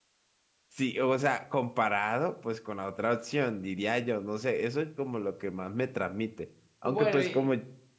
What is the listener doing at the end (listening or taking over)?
listening